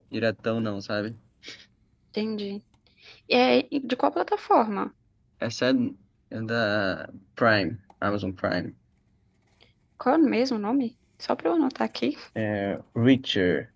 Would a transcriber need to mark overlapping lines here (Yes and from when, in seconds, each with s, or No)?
No